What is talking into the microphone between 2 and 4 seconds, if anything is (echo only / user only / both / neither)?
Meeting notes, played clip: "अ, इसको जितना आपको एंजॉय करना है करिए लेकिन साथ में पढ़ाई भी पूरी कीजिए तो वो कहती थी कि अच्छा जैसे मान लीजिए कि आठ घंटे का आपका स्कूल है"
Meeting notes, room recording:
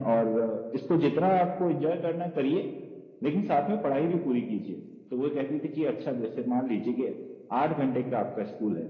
echo only